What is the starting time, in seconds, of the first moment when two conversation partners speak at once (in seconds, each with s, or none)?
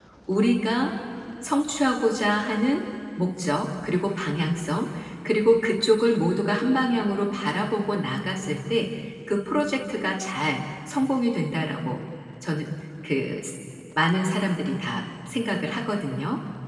none